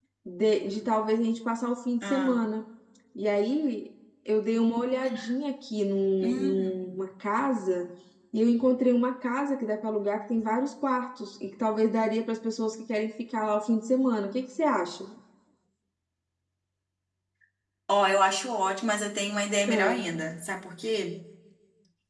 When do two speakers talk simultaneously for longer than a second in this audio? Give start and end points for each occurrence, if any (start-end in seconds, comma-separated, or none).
none